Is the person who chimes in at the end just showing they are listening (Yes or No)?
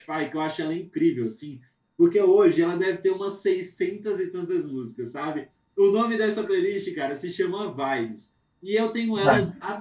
Yes